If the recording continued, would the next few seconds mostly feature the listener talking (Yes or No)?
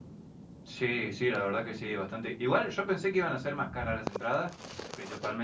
No